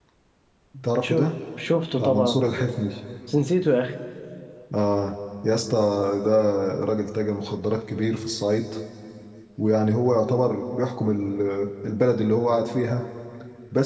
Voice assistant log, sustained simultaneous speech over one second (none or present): none